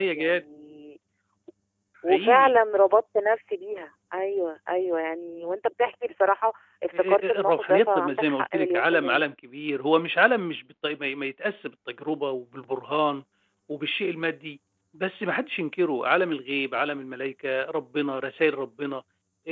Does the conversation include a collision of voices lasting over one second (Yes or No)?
Yes